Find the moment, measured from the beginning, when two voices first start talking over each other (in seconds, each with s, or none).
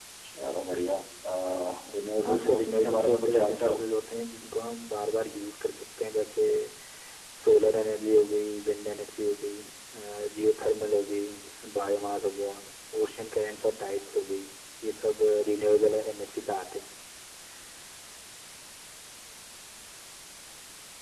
2.2 s